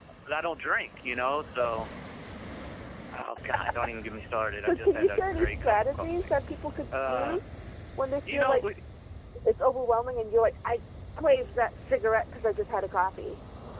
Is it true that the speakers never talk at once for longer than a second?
No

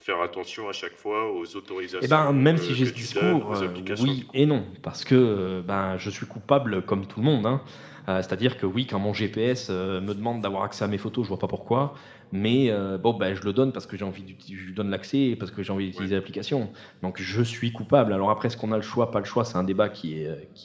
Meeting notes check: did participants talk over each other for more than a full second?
Yes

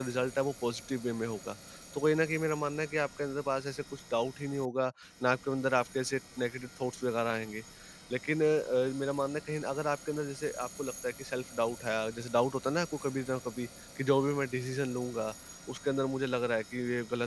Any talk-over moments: No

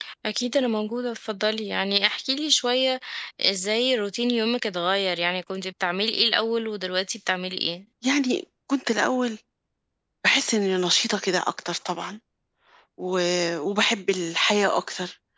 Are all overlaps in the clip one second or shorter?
Yes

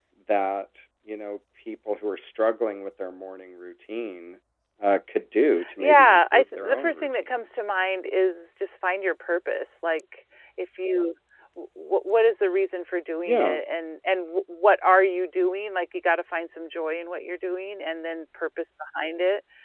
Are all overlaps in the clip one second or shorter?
No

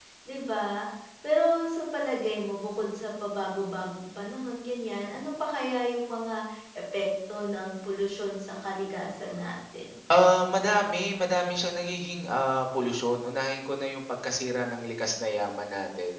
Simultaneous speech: No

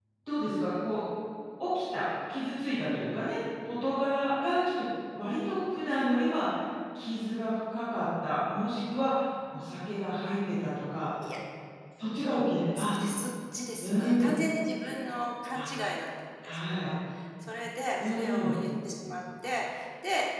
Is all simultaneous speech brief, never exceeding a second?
Yes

